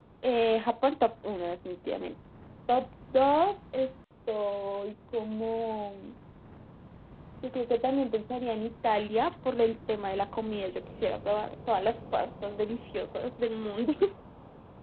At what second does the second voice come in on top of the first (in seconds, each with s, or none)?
none